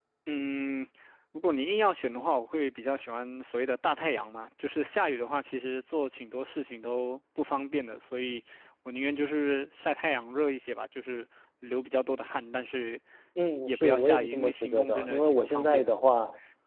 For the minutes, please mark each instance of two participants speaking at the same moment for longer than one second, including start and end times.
13.7-15.9

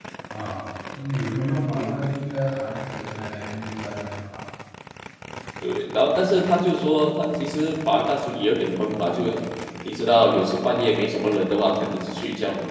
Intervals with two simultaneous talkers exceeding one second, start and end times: none

